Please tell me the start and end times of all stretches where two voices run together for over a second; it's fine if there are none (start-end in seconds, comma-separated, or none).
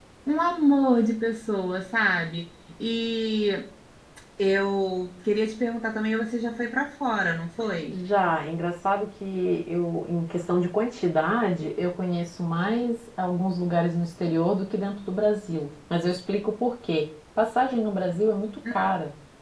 none